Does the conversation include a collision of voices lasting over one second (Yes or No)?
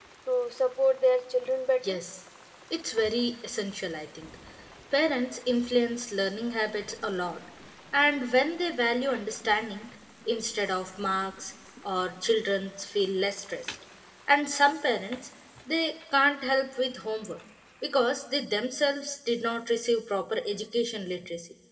No